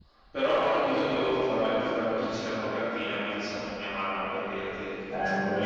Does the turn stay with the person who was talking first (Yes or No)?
No